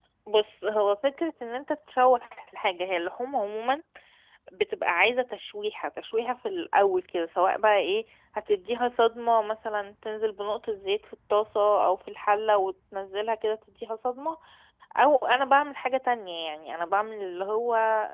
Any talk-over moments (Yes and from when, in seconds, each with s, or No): No